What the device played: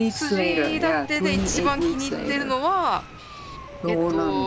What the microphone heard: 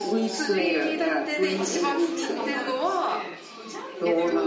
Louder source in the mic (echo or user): echo